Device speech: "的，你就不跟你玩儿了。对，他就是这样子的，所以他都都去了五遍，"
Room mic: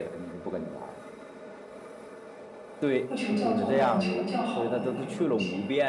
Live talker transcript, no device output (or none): 不求叫座，但求叫好的那么一个路线。